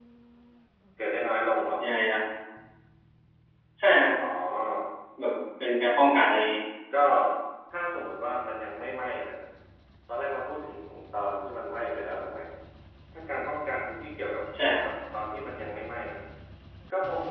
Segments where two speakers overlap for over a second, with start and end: none

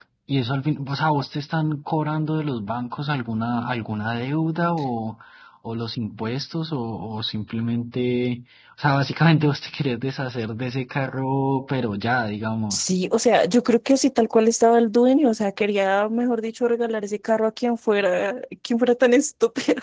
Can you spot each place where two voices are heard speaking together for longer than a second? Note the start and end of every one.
none

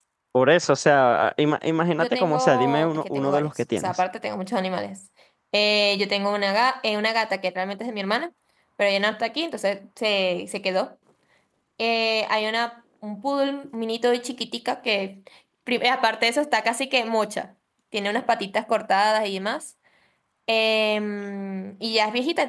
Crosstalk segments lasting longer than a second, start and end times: 2.0-4.0

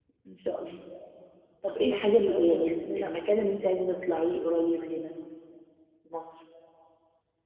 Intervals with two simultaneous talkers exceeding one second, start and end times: 1.7-3.5

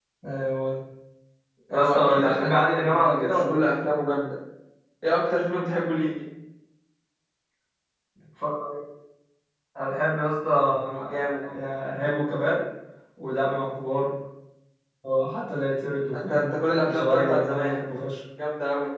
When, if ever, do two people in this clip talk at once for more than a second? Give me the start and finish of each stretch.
1.7-3.6, 16.1-17.8

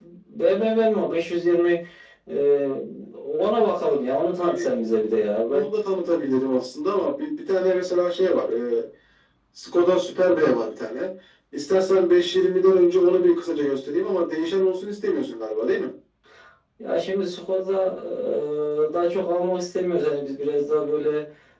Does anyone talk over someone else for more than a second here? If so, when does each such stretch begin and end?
none

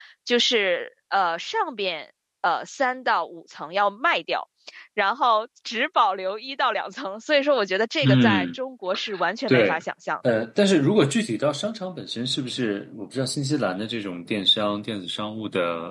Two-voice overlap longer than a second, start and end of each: none

